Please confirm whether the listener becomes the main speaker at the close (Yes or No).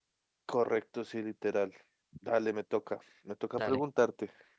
No